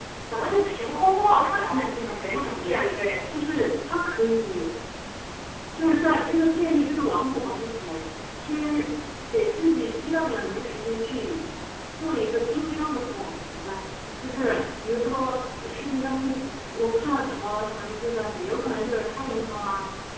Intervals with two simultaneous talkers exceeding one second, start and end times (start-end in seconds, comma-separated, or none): 1.5-2.8